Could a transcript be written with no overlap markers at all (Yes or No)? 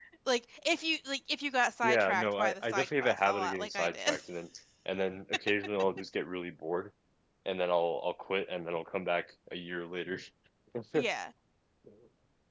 No